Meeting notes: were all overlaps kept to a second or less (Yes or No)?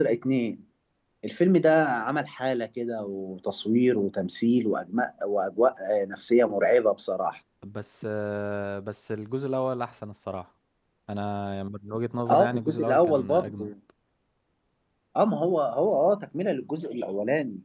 No